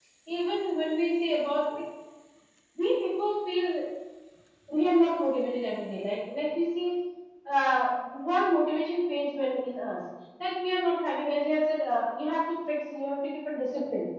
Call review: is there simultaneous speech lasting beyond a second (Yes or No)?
No